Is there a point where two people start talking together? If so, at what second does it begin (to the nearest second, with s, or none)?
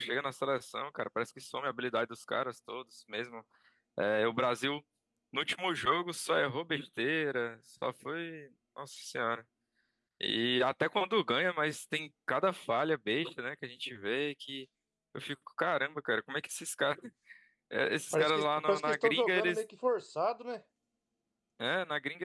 18 s